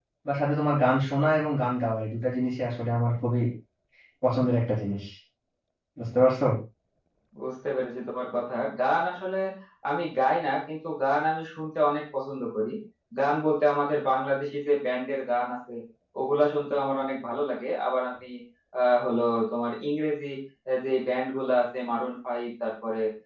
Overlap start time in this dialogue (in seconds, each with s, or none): none